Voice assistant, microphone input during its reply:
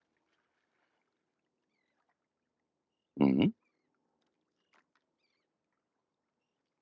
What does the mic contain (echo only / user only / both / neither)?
user only